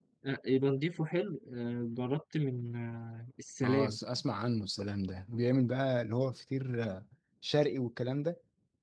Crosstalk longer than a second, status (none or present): none